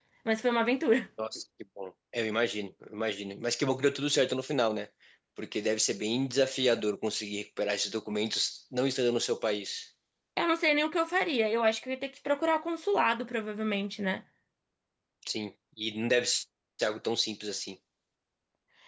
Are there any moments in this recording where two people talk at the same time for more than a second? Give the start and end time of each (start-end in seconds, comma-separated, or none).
none